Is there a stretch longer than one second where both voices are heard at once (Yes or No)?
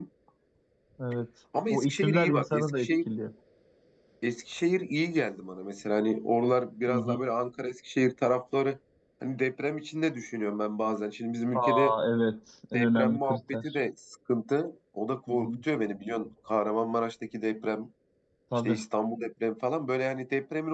Yes